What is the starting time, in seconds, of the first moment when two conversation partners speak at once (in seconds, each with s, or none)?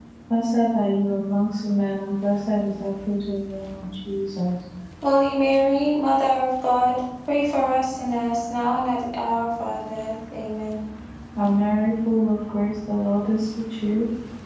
none